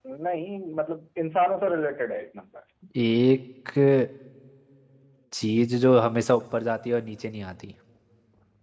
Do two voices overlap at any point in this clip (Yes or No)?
No